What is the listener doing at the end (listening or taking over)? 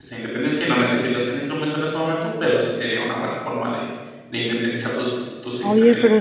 taking over